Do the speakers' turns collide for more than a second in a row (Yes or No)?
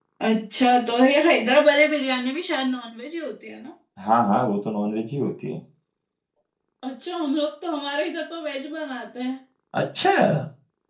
No